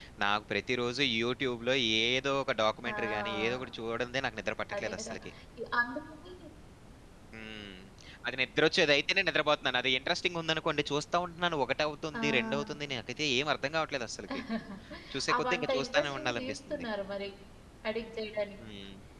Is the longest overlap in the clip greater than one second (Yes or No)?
Yes